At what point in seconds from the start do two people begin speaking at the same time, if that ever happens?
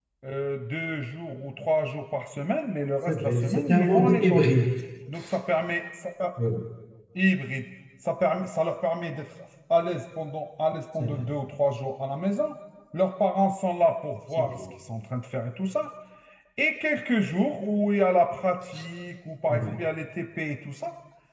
3 s

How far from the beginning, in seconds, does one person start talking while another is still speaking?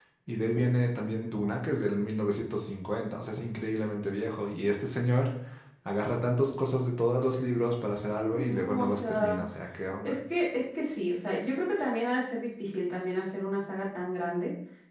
8 s

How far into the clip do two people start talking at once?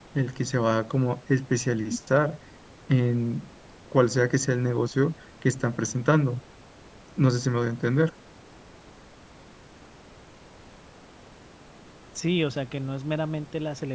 none

